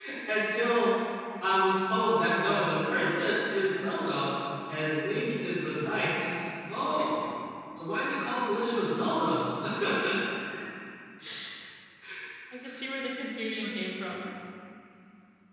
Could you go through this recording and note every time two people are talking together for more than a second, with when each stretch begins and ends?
none

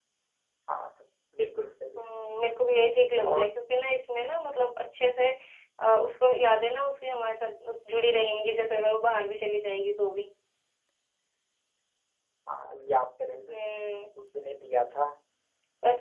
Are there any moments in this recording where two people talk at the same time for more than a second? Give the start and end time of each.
none

